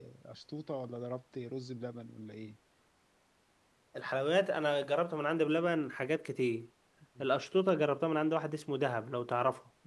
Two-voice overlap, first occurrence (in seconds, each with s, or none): none